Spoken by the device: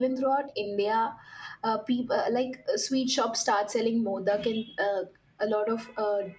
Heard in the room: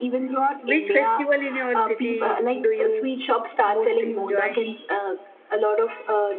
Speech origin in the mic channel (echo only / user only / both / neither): both